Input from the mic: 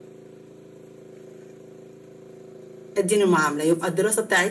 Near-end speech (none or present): present